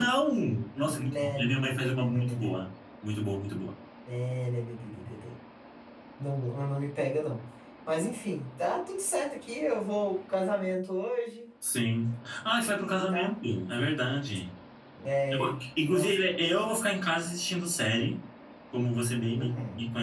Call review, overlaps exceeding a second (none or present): present